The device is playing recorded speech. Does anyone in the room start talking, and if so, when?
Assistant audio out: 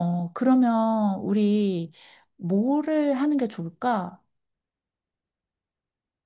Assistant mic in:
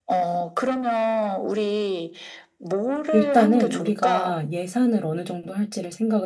3 s

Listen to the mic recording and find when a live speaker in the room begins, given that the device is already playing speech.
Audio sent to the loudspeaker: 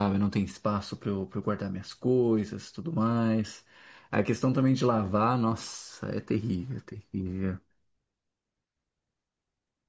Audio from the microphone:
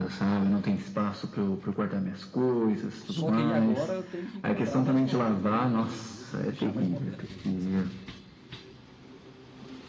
3 s

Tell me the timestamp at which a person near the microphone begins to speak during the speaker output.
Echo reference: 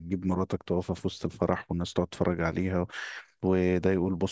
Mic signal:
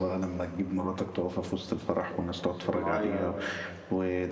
3 s

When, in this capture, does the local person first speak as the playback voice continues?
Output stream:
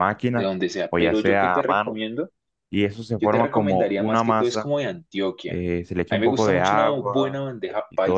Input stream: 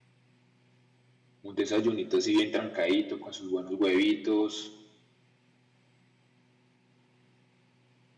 1 s

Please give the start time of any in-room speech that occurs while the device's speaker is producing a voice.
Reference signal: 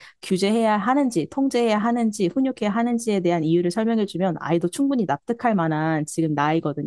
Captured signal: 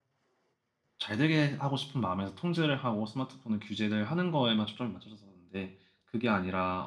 1 s

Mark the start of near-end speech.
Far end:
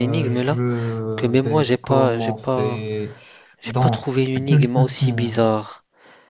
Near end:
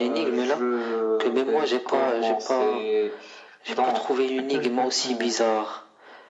none

